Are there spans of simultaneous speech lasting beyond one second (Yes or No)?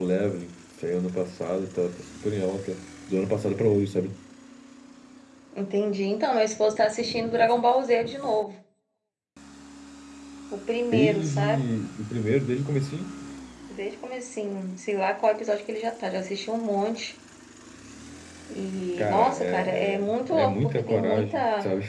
Yes